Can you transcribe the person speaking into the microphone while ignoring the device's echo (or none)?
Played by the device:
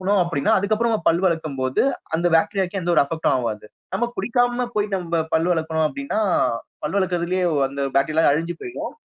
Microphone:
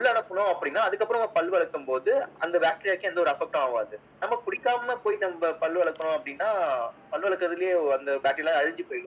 none